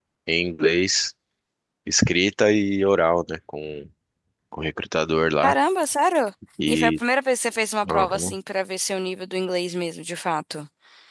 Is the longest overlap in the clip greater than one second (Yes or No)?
No